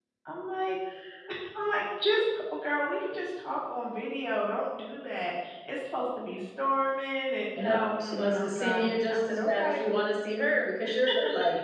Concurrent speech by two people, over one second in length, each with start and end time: 7.6-9.8

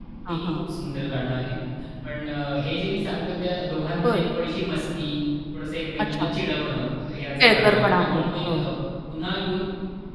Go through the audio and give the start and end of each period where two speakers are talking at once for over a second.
7.4-8.7

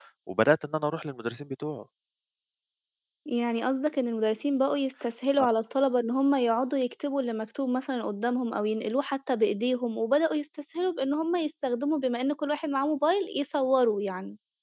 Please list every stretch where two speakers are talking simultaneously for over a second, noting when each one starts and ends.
none

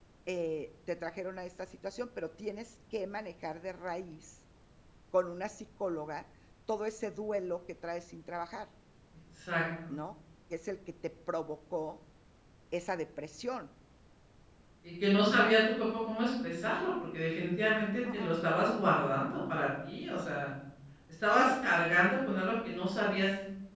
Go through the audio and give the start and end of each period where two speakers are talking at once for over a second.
none

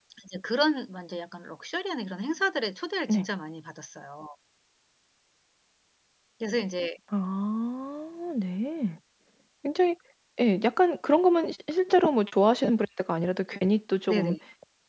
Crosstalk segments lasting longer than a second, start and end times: none

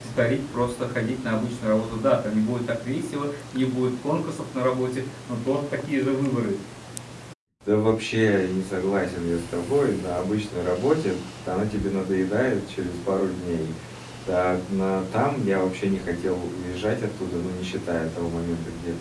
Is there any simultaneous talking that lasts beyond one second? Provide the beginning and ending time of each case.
none

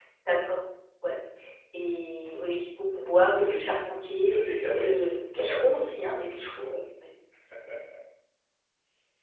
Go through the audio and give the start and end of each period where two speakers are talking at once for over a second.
4.2-5.7

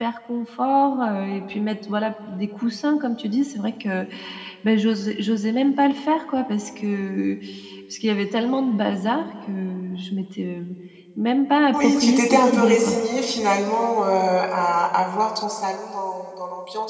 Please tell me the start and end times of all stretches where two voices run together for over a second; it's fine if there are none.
11.7-13.0

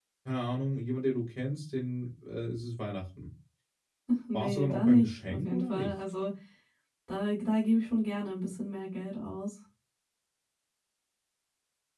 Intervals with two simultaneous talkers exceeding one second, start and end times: 4.3-5.9

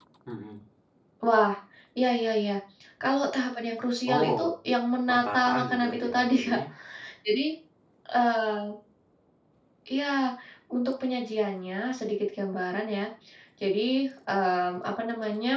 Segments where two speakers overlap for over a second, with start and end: 5.1-6.6

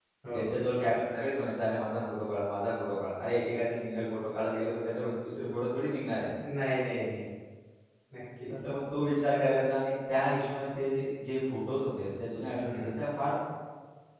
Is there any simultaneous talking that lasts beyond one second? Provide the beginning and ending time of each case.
none

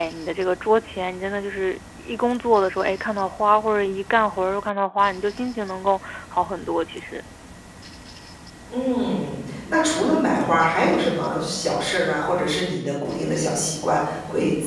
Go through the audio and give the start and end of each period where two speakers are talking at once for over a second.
none

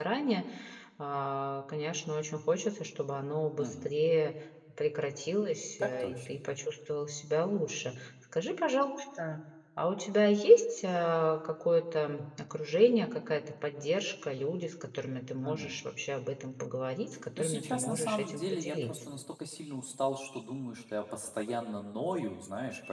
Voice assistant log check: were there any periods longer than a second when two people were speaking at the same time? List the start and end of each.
17.4-18.9

